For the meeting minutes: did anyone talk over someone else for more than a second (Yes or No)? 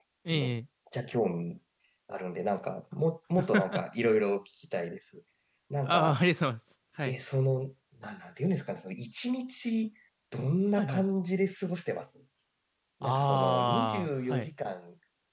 Yes